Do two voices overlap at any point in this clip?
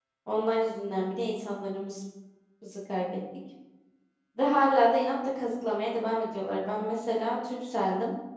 No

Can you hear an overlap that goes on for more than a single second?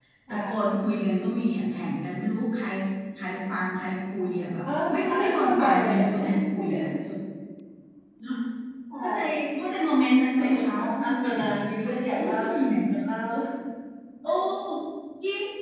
Yes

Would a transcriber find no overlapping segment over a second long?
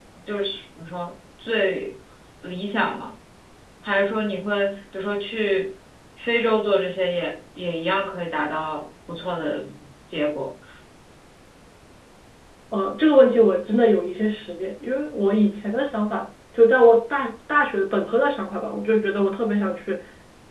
Yes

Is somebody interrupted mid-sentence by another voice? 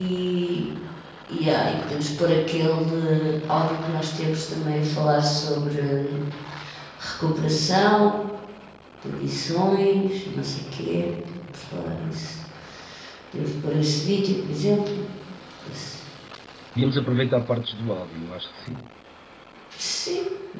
No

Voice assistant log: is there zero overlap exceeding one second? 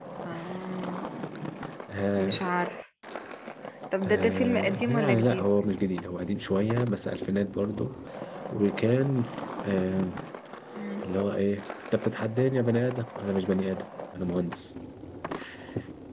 No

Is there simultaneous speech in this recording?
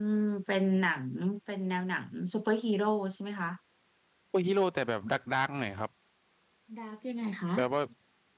No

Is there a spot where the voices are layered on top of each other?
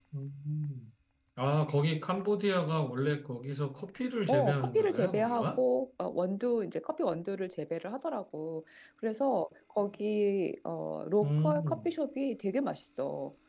Yes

